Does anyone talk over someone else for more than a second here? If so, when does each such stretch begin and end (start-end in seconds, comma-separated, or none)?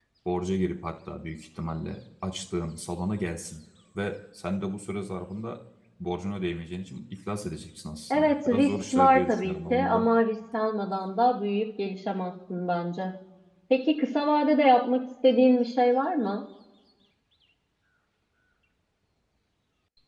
8.1-10.1